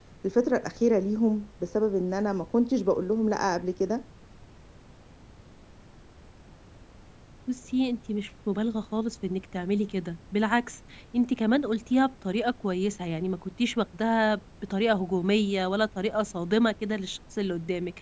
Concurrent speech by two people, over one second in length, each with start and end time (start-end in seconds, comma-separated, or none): none